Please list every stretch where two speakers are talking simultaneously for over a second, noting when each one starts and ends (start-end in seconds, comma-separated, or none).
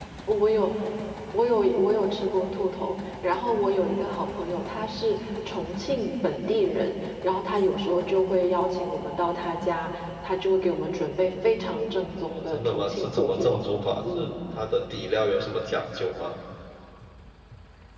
12.3-13.6